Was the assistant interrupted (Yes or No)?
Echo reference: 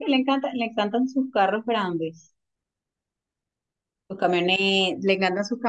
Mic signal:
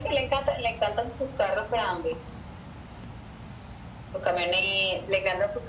No